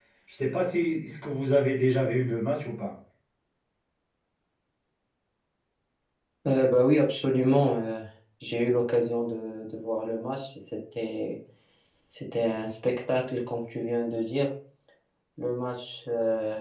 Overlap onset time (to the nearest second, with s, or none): none